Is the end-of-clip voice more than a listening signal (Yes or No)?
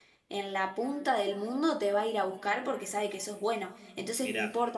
No